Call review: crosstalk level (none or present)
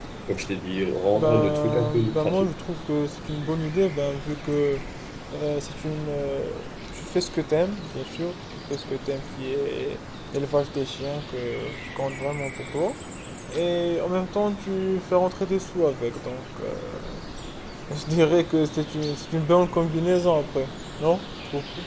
present